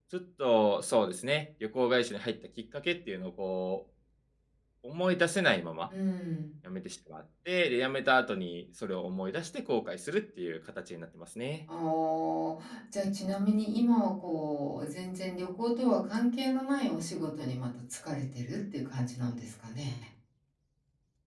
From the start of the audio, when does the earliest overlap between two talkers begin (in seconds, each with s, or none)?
none